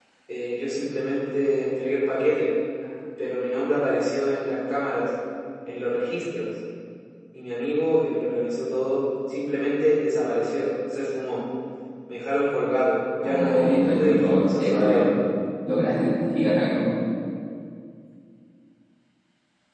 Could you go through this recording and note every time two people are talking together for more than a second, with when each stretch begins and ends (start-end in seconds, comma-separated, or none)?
13.2-15.1